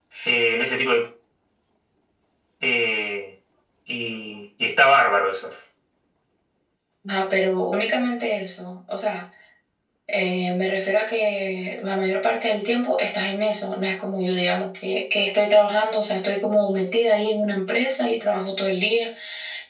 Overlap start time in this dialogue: none

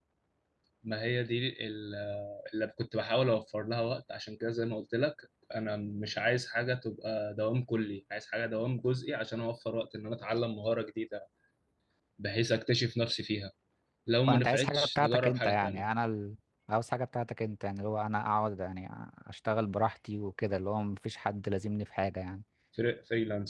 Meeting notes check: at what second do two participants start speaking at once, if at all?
14 s

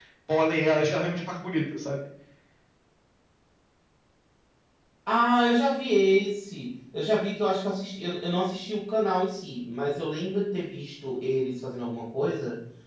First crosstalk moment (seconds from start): none

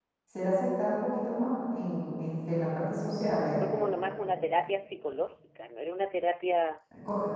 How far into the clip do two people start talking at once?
none

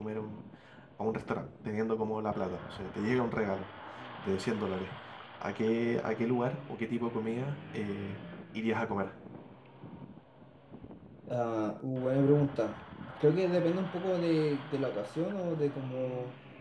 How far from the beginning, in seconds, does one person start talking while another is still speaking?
none

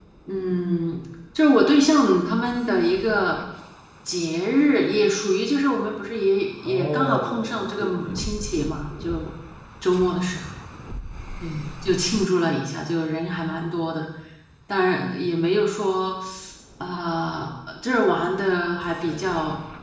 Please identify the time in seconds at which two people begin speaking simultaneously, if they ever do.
7 s

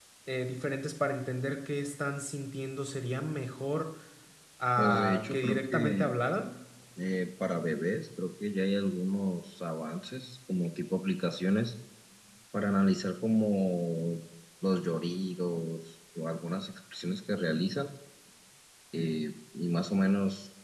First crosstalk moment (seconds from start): 5 s

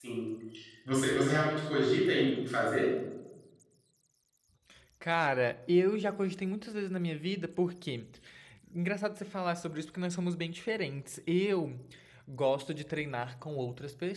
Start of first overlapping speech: none

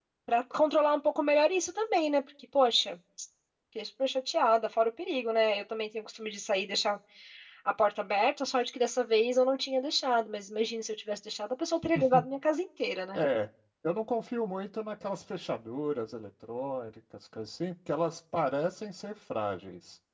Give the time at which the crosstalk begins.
none

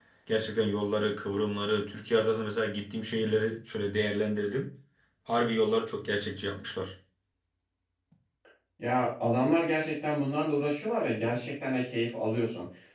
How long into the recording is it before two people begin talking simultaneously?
none

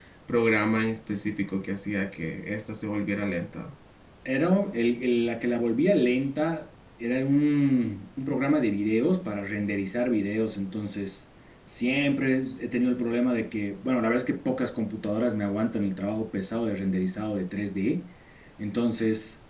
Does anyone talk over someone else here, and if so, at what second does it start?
none

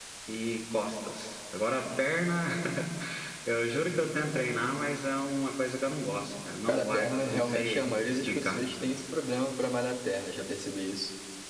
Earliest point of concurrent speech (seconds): 7 s

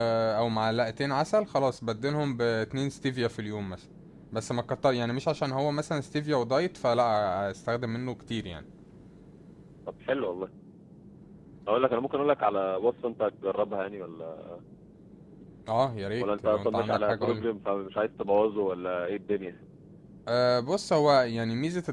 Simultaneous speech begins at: 16 s

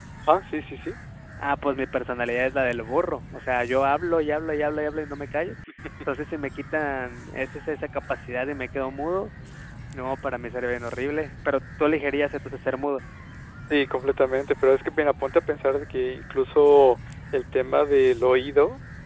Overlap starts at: none

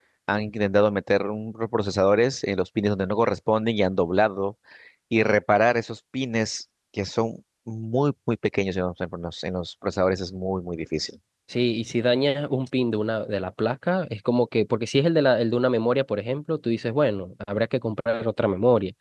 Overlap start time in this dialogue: none

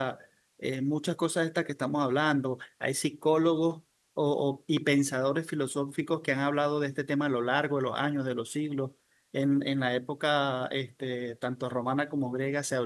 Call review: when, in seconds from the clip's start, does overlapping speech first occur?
none

